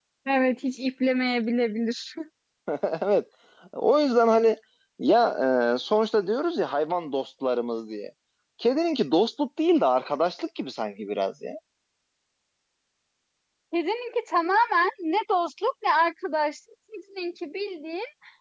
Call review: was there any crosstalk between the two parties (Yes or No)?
No